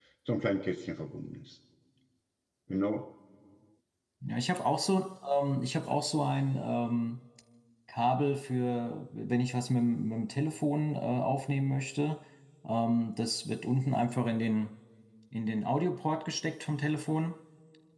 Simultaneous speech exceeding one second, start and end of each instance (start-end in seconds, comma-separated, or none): none